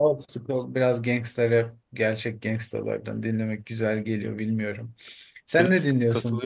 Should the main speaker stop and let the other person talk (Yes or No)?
Yes